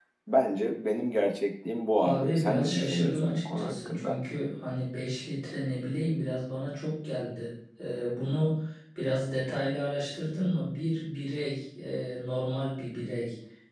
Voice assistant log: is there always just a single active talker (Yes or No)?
No